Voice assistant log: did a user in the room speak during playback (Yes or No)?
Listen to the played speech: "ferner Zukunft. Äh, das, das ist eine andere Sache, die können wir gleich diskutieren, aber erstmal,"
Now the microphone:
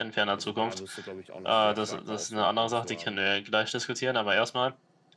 Yes